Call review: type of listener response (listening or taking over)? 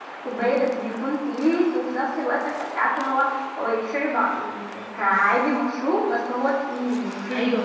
taking over